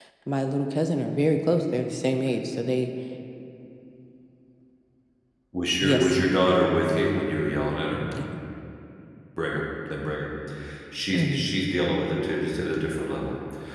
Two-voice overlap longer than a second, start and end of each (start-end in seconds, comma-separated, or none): none